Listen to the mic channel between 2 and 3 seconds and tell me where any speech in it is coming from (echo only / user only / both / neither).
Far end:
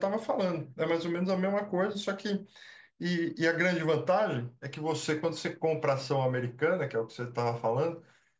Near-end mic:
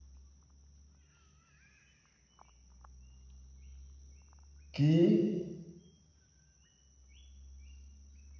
neither